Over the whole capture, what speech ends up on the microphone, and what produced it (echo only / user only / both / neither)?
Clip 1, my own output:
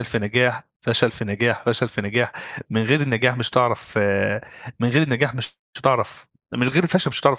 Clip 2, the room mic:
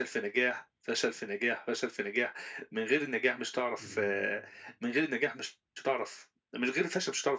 both